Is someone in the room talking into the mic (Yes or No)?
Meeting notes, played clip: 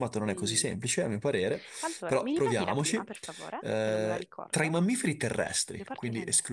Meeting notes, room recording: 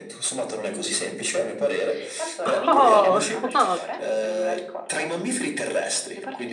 Yes